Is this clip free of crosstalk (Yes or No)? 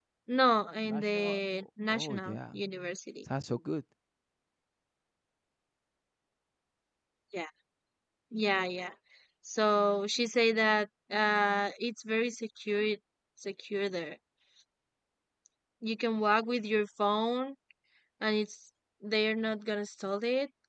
No